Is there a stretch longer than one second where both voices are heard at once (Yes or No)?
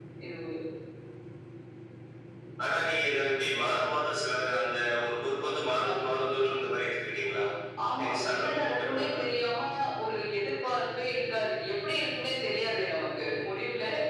Yes